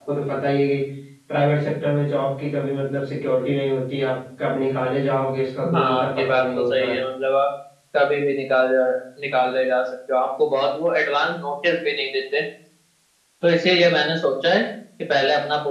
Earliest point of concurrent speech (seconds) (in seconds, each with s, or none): 5.6 s